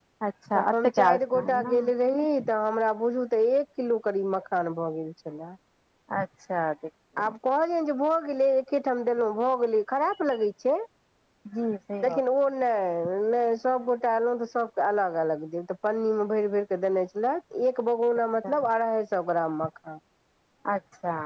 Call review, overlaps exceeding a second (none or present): present